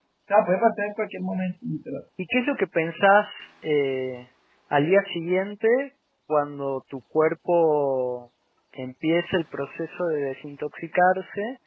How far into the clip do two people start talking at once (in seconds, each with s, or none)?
none